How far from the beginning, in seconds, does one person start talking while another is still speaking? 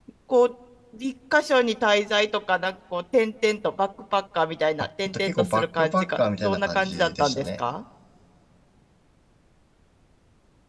5 s

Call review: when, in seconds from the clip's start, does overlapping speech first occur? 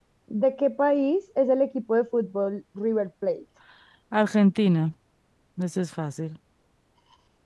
none

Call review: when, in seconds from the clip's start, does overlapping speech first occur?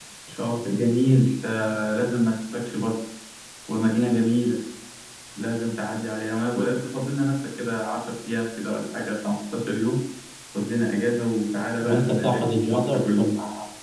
12 s

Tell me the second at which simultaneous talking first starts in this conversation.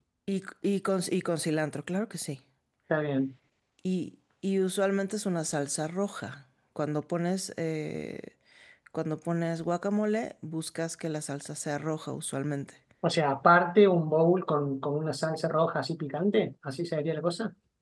none

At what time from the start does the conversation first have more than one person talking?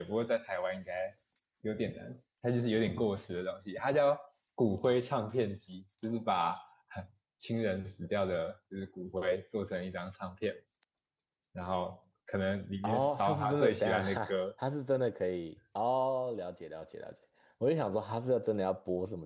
13 s

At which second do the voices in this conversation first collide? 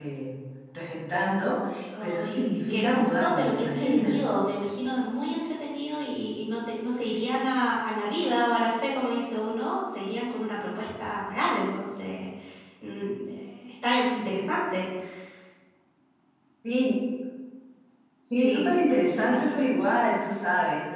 2 s

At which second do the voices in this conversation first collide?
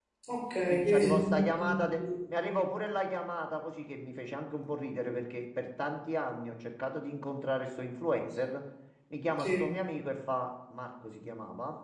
1 s

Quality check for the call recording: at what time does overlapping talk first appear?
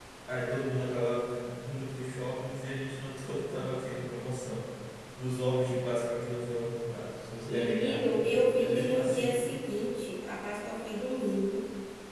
7 s

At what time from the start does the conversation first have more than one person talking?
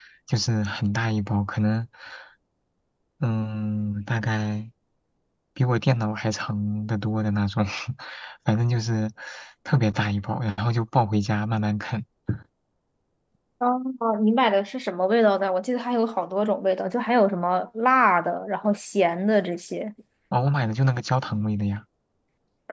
none

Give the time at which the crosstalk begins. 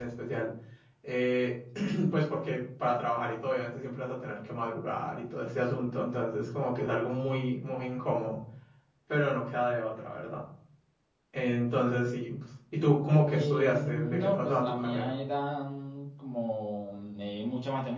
13 s

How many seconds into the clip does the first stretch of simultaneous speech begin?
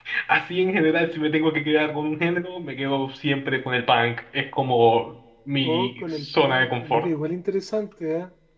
6 s

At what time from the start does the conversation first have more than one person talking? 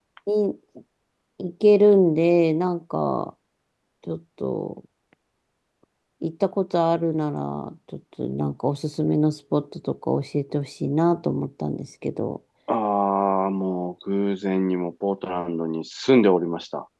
none

